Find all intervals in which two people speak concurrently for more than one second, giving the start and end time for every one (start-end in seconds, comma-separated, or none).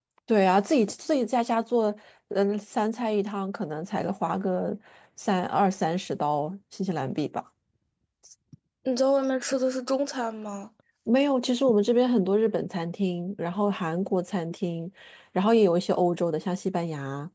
none